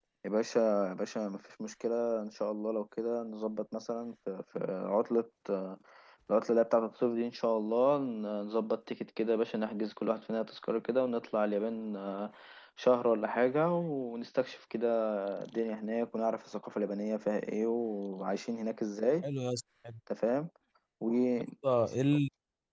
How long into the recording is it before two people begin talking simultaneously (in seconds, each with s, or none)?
none